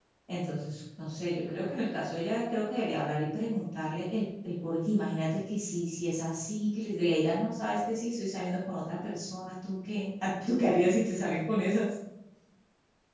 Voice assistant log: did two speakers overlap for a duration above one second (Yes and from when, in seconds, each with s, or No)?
No